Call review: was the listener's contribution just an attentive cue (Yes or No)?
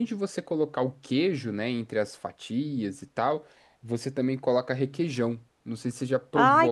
No